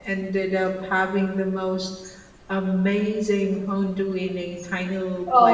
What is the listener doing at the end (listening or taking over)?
taking over